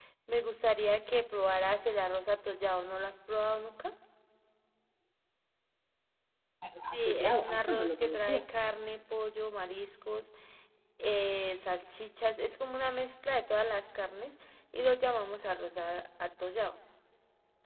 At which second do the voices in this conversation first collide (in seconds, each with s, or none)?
6.9 s